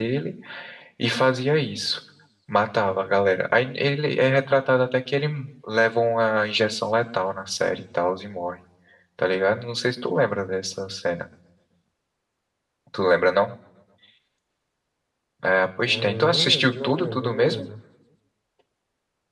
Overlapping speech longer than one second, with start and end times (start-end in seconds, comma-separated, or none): 15.8-17.7